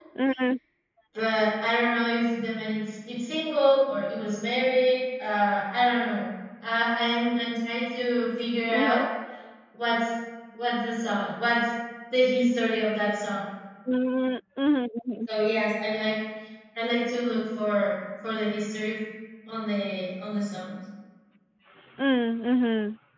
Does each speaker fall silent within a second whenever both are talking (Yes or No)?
Yes